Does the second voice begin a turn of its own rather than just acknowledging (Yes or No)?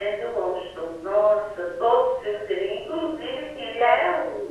No